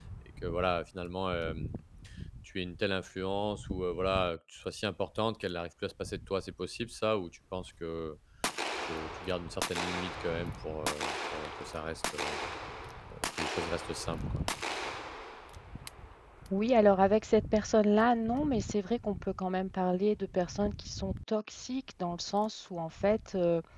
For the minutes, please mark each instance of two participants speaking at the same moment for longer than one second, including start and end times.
none

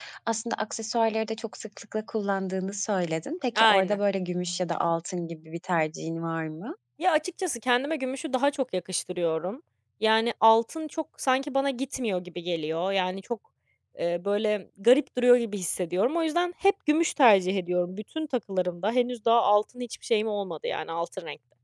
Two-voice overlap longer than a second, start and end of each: none

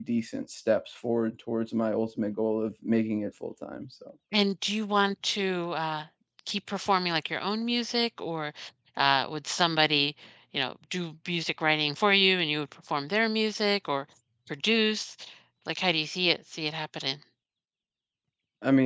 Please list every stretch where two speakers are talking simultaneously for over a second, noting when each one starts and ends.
none

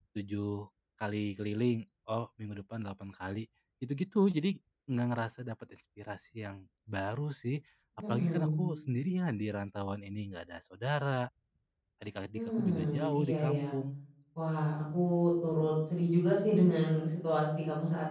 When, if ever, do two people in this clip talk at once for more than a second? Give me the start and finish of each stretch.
12.3-13.6

